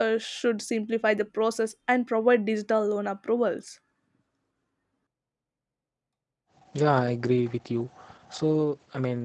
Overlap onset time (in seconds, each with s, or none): none